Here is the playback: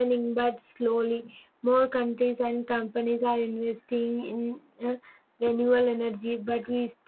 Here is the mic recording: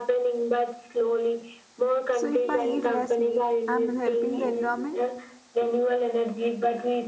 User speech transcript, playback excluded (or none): So, if I eat less meat, I'm helping the environment?